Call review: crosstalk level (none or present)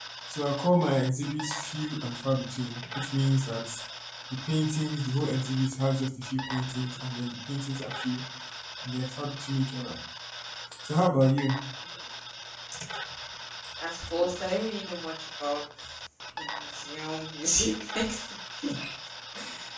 none